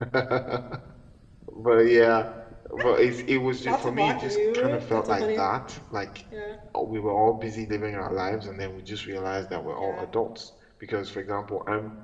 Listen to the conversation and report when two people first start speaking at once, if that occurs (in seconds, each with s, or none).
3.6 s